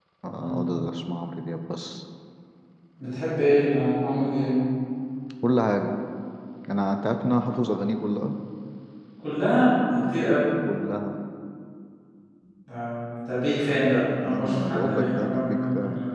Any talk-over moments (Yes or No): Yes